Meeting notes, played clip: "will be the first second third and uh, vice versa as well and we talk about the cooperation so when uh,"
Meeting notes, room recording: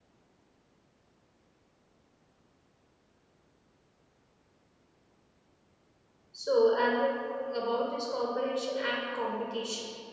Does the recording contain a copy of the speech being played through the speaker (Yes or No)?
No